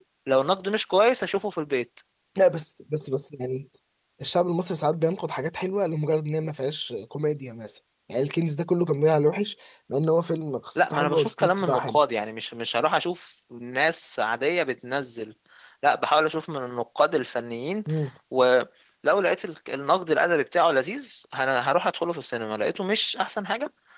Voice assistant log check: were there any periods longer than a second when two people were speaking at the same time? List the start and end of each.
10.8-12.0

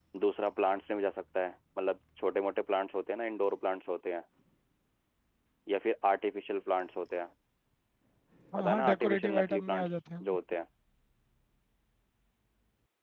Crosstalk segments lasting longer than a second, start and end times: 8.6-10.4

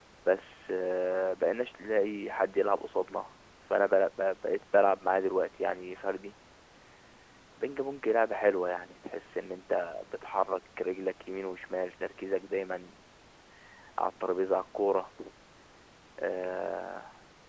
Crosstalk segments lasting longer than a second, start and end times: none

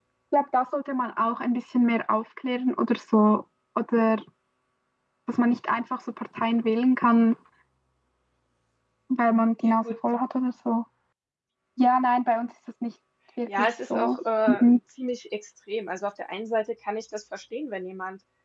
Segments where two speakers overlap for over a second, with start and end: 13.5-14.8

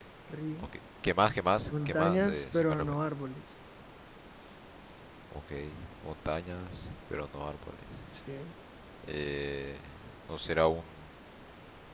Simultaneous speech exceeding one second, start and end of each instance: 1.7-3.0

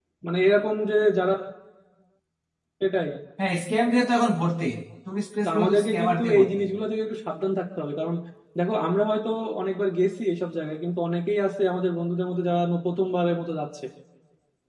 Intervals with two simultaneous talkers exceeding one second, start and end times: 5.4-6.6

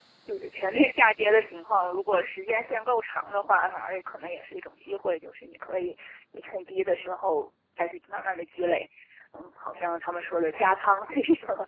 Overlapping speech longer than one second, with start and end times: none

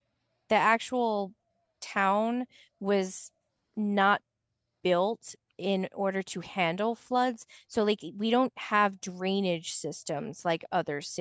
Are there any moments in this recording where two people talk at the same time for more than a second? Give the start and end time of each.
none

